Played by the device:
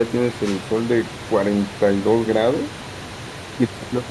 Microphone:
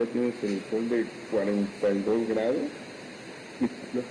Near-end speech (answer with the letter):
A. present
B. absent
B